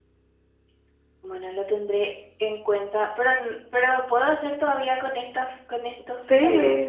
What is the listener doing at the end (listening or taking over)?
taking over